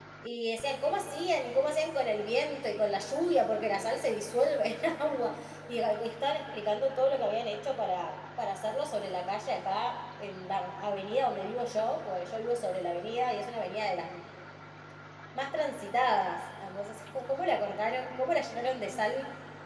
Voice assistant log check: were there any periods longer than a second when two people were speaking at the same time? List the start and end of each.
none

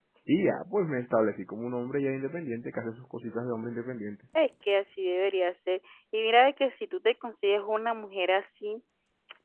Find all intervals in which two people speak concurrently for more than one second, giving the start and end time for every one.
none

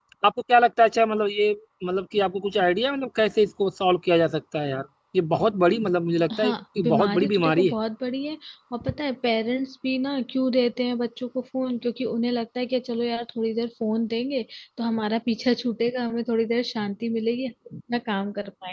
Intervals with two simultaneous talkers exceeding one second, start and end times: 6.4-7.7

